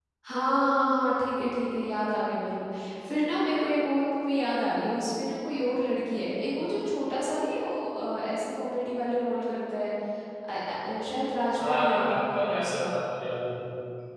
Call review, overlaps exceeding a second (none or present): present